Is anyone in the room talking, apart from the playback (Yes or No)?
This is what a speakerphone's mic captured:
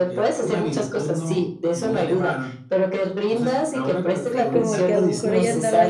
Yes